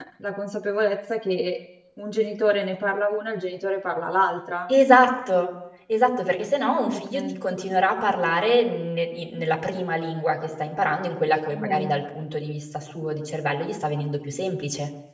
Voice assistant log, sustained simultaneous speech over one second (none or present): none